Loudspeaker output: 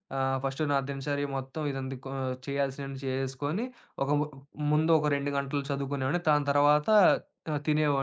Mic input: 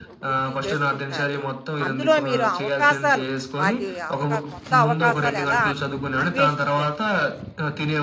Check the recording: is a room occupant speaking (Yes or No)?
Yes